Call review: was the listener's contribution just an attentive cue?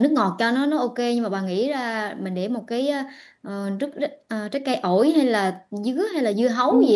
No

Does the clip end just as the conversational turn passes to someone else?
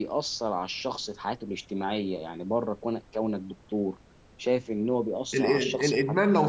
Yes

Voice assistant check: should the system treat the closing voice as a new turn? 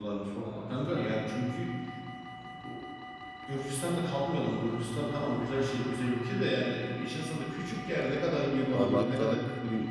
Yes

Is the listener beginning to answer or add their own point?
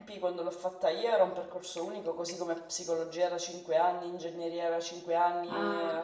No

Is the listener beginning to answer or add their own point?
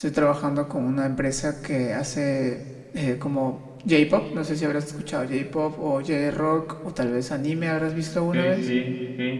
Yes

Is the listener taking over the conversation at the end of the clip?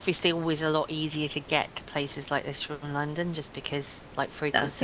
No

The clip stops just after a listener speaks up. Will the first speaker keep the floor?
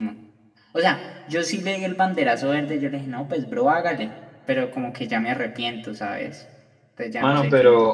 No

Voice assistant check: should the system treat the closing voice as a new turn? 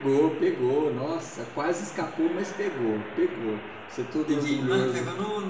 Yes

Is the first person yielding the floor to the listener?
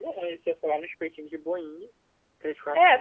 Yes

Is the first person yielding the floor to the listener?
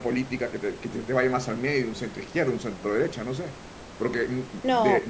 No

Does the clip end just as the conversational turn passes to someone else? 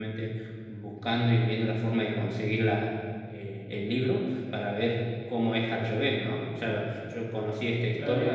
No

